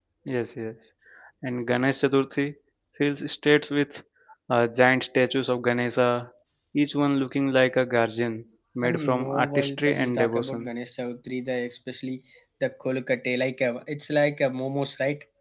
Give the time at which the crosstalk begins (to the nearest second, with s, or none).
9 s